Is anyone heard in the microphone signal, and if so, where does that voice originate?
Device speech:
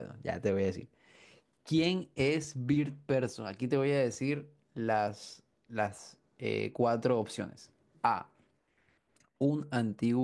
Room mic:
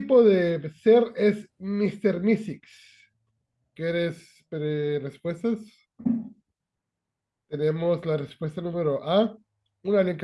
user only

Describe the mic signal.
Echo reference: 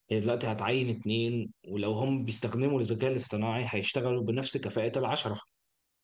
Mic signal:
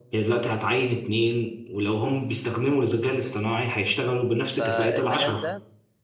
both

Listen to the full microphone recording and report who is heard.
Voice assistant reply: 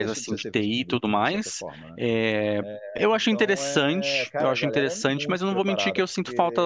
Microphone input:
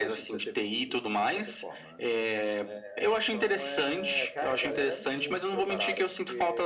echo only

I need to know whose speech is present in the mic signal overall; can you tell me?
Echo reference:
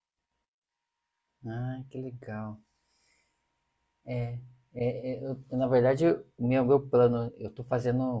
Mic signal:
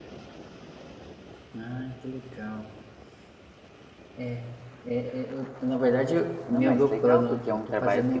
both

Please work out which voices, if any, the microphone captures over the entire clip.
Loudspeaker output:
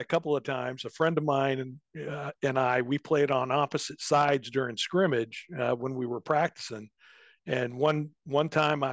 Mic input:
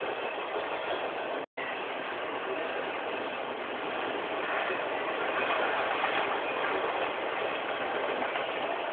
neither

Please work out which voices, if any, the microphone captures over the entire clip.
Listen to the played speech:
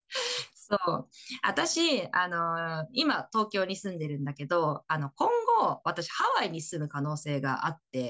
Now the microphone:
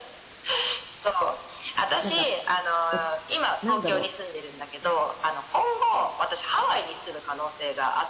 both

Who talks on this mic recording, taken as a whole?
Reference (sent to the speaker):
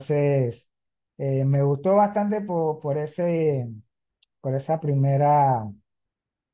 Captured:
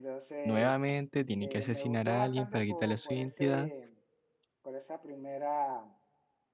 both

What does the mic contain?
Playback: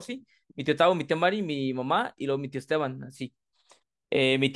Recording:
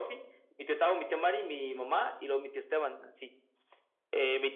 echo only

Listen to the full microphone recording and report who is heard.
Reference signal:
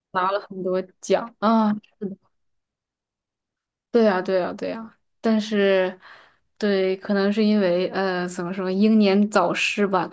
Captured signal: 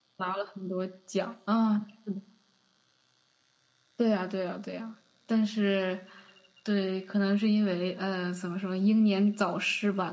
echo only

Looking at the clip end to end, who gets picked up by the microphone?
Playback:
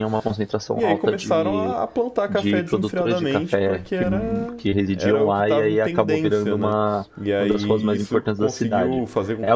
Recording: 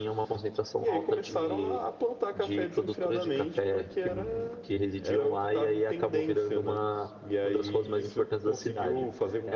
echo only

